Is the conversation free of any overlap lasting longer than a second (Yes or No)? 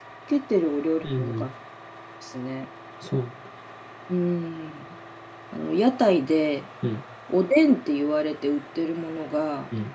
Yes